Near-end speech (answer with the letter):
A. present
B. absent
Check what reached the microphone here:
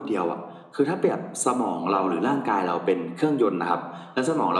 B